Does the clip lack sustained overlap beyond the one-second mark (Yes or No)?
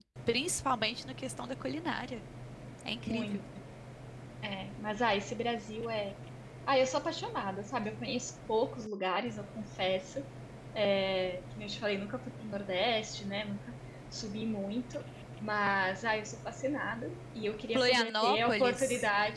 No